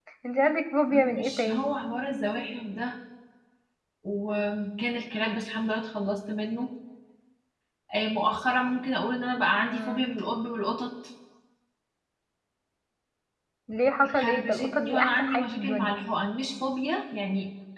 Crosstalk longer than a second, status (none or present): present